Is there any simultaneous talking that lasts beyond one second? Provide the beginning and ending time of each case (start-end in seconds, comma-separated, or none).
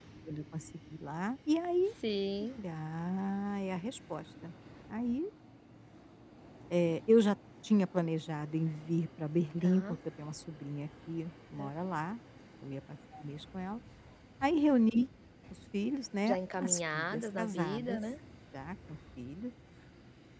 16.3-18.0